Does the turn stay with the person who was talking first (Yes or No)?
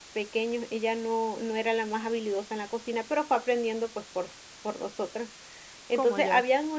Yes